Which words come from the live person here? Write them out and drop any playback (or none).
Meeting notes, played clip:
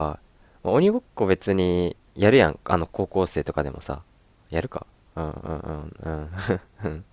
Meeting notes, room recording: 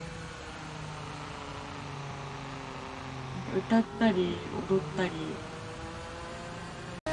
なんか歌ったり踊ったり、